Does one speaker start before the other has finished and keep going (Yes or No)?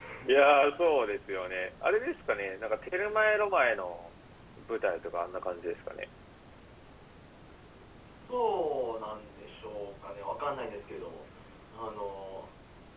No